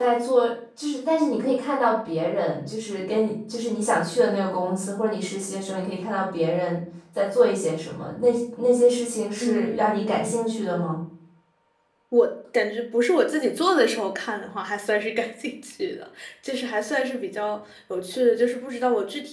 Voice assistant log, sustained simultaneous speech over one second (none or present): present